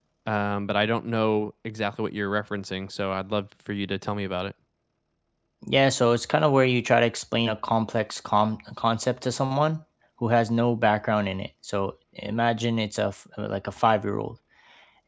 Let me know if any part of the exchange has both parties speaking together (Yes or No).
No